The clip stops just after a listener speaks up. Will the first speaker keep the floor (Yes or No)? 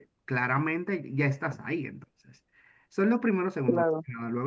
Yes